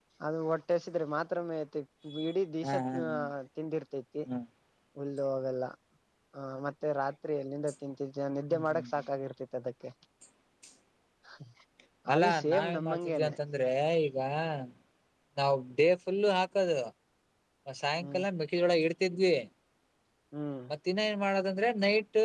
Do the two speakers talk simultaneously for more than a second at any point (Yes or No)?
Yes